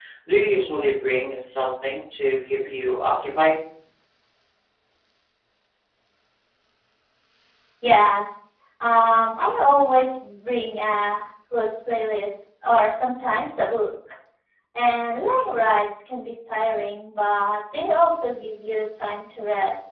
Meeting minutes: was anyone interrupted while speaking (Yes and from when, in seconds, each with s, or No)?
No